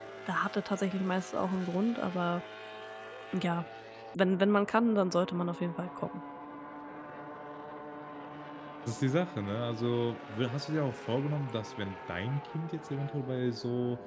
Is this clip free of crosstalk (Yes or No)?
Yes